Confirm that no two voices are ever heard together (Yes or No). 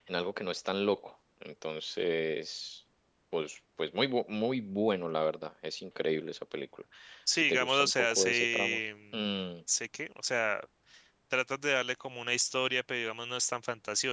No